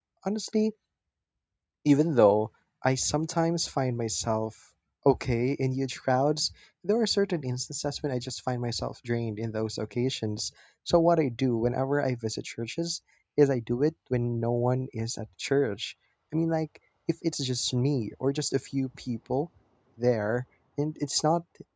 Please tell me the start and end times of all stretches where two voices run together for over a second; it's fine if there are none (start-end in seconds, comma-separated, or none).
none